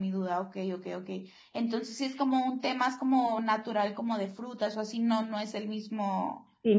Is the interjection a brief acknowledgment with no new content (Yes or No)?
No